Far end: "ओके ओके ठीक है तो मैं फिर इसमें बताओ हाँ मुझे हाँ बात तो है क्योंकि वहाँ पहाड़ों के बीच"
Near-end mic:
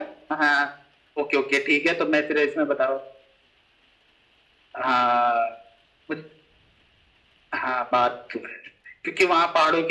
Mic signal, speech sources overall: echo only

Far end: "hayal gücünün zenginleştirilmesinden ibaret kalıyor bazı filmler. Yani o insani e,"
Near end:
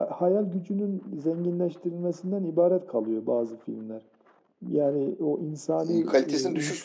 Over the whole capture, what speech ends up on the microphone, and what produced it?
both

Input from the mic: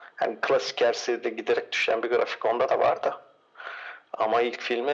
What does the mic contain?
echo only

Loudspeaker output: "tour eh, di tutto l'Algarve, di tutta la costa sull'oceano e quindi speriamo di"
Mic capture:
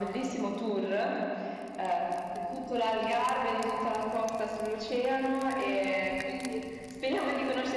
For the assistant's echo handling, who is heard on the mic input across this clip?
echo only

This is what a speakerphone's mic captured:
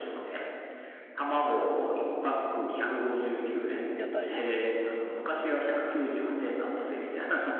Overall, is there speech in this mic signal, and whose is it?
both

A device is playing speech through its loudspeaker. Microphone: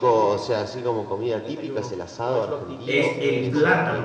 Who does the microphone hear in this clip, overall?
both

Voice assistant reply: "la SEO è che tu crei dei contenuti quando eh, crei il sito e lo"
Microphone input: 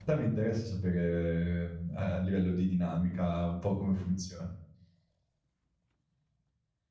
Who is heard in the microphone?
user only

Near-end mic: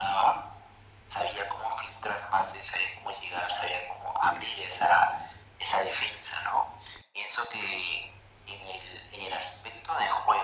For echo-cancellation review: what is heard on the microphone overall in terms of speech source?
echo only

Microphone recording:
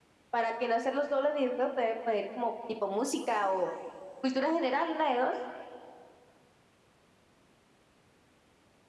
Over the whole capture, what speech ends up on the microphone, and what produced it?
user only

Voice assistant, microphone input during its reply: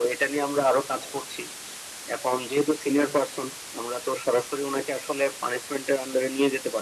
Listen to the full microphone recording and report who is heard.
echo only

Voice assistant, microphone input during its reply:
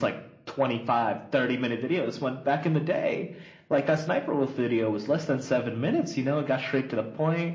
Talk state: echo only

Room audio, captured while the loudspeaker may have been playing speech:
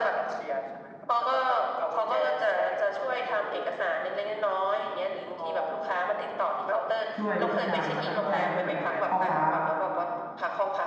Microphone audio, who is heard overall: both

